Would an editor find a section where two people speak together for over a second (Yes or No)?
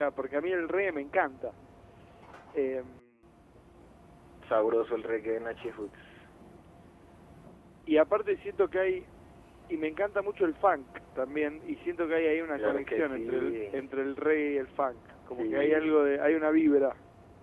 Yes